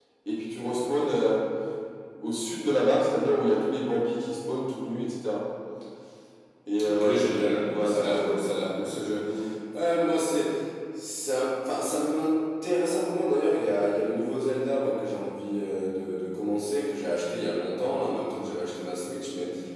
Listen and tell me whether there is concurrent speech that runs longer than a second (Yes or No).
Yes